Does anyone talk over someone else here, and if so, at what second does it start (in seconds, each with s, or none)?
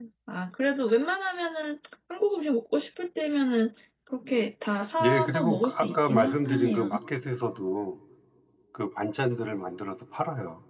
5.0 s